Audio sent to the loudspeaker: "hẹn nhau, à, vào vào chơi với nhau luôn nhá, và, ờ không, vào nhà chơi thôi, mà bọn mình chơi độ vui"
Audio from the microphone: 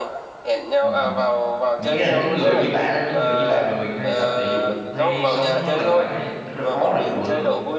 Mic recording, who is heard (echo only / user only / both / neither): both